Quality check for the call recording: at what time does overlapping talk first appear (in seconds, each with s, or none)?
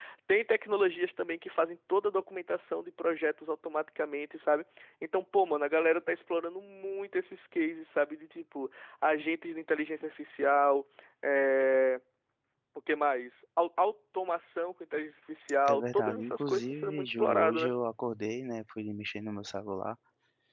15.6 s